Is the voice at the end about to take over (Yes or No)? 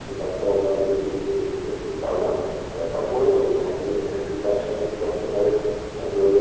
No